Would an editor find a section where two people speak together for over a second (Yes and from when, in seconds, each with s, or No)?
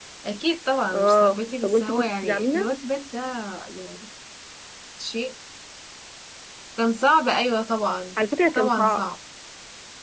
Yes, from 0.9 s